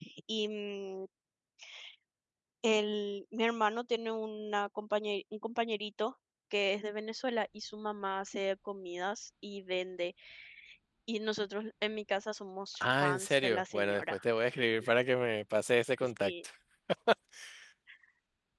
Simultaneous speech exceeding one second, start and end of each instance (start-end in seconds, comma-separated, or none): 12.8-14.2